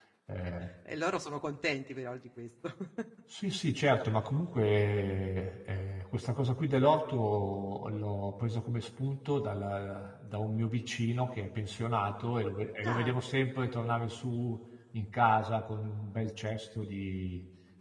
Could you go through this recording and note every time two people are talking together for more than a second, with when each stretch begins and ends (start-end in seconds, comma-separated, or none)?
none